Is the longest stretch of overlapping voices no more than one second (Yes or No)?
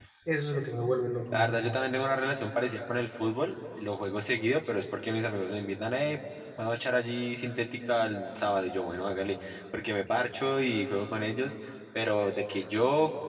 Yes